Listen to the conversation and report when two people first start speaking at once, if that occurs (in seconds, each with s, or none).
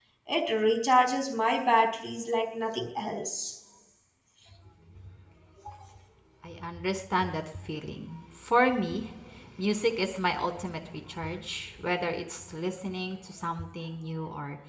none